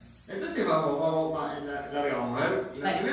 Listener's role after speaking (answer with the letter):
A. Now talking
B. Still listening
B